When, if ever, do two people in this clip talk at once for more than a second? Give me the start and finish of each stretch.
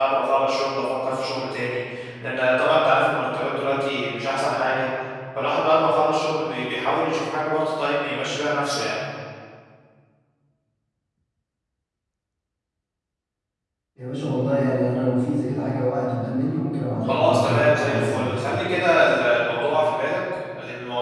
17.0-18.3

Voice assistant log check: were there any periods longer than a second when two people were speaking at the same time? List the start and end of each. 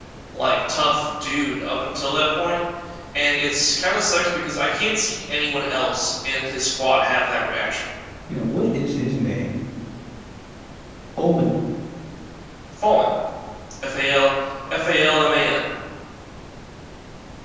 none

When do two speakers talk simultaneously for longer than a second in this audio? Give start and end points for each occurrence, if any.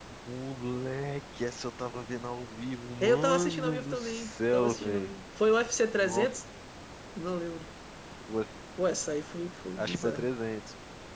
3.0-5.1

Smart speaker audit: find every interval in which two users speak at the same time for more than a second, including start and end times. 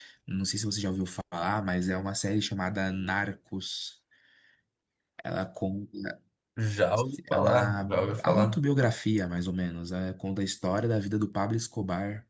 7.3-8.6

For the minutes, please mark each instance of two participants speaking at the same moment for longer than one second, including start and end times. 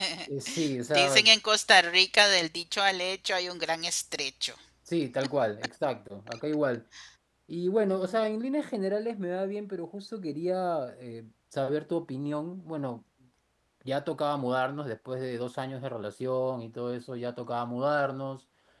none

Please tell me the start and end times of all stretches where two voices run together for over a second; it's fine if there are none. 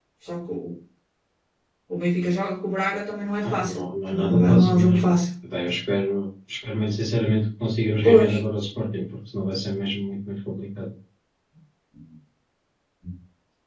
3.4-5.1

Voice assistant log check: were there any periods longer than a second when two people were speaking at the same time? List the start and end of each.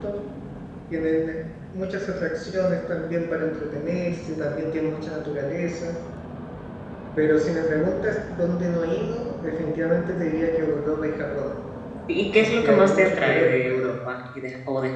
12.4-13.9

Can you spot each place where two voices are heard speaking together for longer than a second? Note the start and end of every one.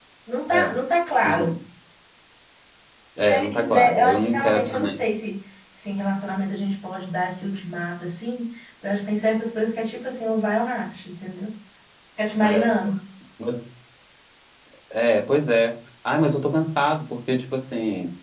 3.3-4.9

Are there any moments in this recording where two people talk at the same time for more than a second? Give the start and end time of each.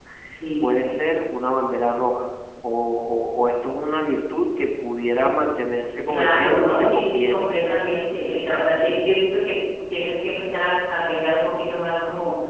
6.1-7.5

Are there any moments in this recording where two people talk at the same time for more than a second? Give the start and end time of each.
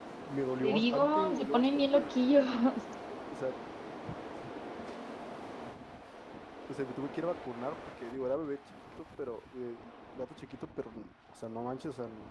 0.6-2.1

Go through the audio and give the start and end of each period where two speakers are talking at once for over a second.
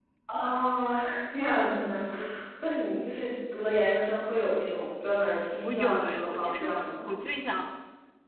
5.6-7.1

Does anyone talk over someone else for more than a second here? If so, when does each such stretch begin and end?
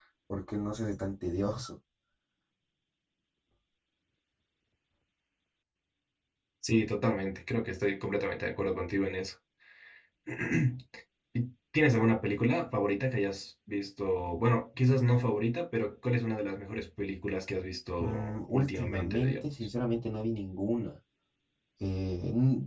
18.0-19.5

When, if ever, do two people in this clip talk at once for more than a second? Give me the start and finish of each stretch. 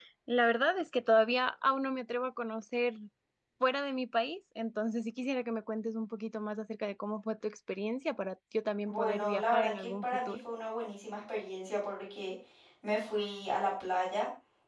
8.9-10.4

